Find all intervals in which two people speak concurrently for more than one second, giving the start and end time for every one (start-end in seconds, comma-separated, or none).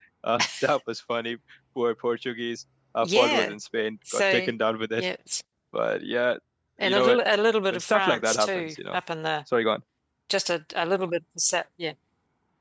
7.7-9.0